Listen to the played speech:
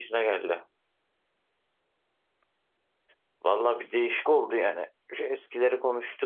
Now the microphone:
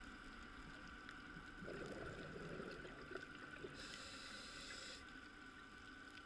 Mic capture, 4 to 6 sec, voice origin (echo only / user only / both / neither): neither